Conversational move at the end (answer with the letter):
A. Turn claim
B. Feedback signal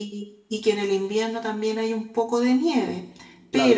A